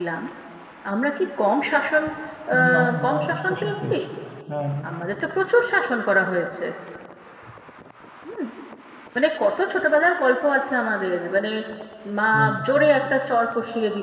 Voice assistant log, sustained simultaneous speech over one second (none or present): present